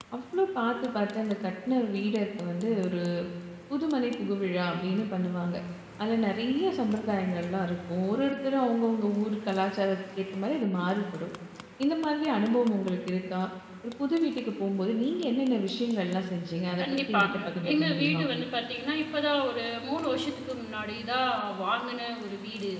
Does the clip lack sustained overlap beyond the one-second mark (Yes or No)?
No